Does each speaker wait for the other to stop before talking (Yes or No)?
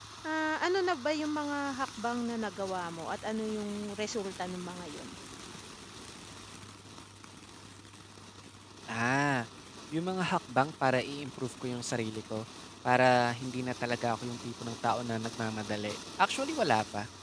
Yes